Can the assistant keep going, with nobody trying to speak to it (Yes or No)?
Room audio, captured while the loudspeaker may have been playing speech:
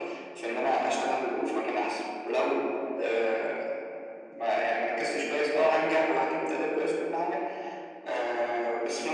Yes